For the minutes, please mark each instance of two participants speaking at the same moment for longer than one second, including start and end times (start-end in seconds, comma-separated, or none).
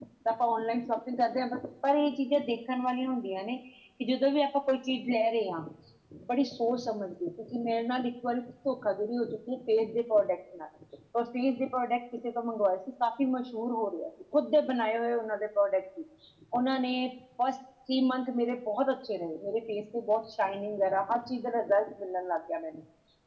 none